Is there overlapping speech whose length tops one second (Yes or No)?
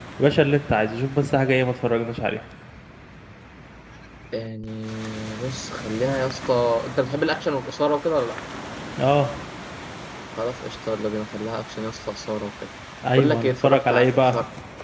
Yes